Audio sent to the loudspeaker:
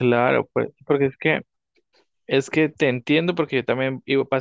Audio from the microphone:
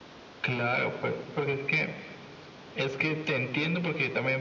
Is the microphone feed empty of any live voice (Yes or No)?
Yes